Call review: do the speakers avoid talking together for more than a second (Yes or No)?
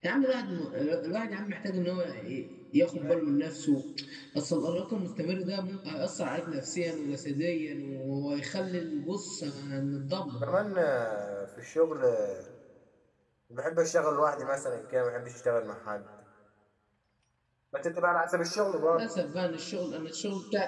Yes